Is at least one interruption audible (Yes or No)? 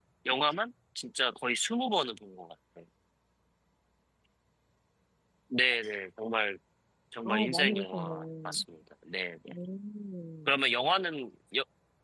Yes